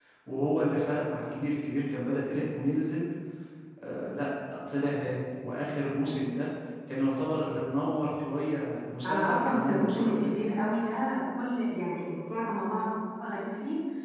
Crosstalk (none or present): present